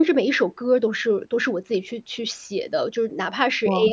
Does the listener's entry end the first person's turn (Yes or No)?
No